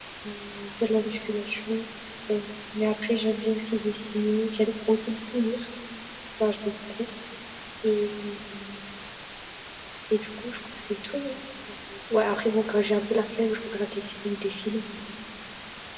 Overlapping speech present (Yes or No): No